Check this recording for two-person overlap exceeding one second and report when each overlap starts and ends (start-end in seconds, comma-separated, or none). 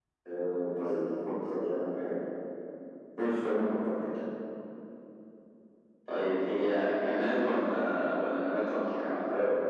none